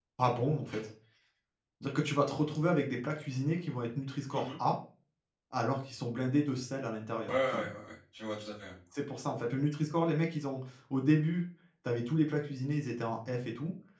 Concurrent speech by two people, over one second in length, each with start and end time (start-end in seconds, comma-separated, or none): none